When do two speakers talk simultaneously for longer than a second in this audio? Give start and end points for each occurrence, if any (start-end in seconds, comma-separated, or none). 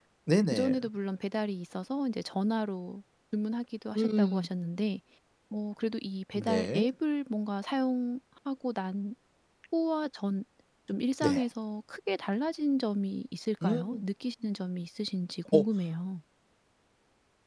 none